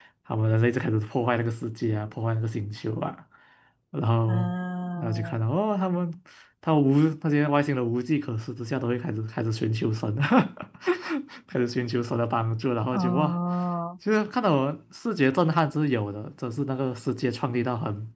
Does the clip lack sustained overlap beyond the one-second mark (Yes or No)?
Yes